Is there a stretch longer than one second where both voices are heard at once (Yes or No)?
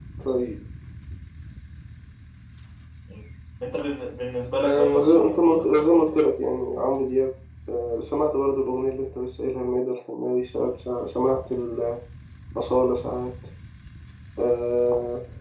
Yes